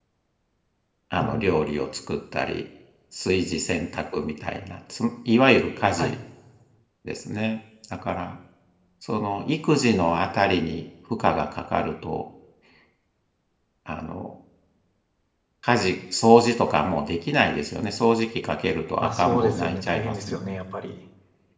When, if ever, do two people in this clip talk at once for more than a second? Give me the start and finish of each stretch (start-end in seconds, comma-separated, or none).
19.0-20.5